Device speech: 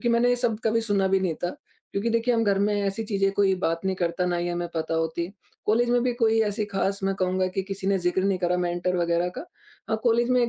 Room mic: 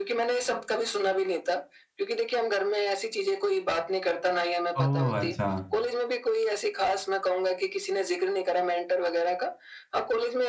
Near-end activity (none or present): present